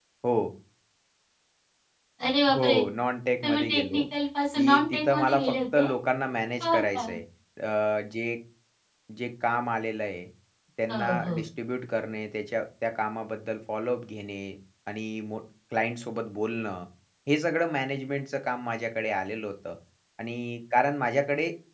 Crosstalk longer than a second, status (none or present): present